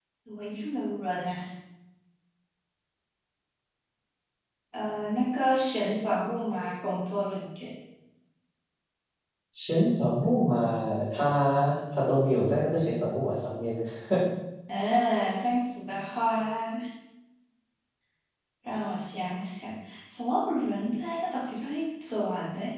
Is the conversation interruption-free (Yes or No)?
Yes